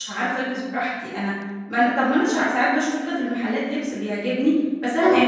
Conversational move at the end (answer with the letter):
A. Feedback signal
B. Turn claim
A